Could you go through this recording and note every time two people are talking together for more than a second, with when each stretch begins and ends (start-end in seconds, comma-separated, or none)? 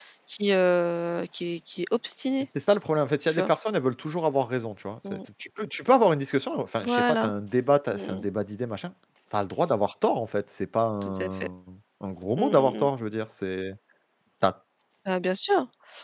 none